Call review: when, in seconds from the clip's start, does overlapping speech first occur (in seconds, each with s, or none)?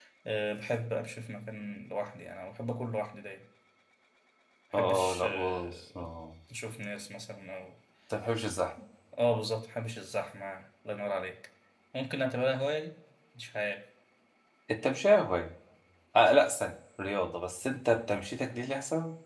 4.7 s